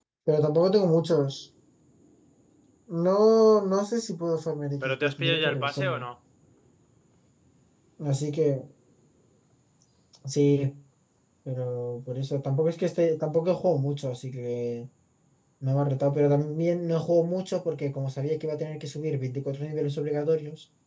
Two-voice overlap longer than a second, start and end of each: 4.8-6.0

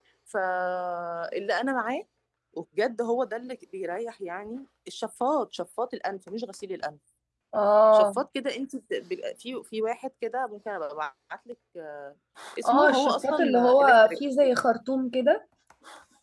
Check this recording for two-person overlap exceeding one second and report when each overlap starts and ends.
12.7-14.2

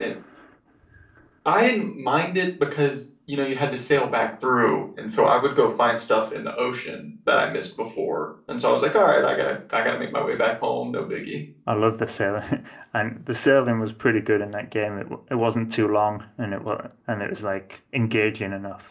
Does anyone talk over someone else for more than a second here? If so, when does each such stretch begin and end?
none

